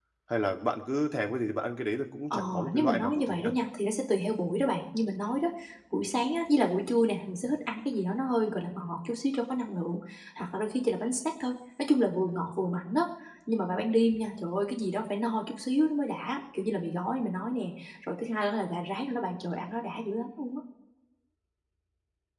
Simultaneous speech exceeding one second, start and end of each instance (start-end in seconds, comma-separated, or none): 2.3-3.5